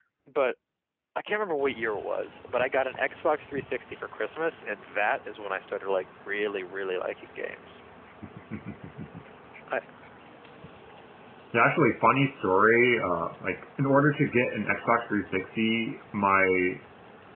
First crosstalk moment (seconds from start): none

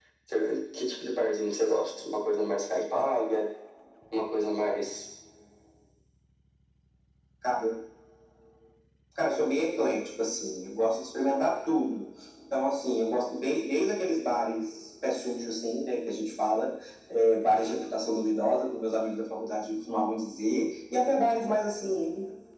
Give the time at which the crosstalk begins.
none

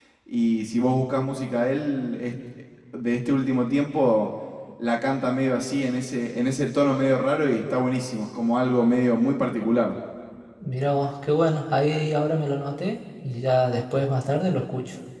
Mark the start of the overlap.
none

